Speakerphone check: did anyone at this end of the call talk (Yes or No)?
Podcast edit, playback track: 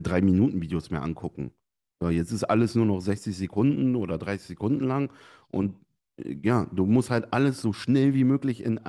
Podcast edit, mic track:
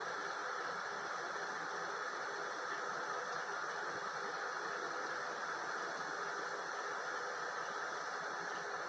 No